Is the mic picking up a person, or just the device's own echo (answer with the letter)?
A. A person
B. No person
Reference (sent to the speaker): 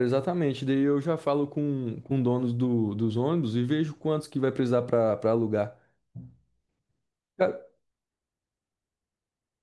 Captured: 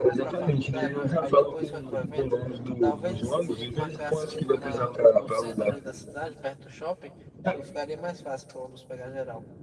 A